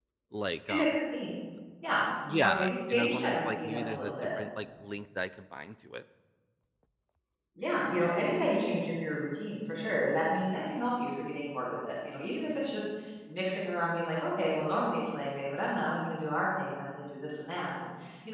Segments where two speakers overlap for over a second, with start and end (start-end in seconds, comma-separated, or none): 2.3-4.1